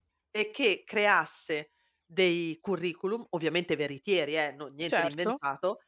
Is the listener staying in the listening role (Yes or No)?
Yes